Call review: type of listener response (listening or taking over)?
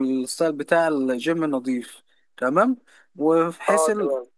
listening